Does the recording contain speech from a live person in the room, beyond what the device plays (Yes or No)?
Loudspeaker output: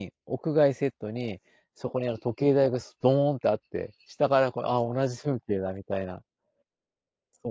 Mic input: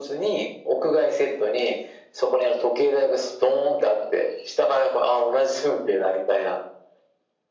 No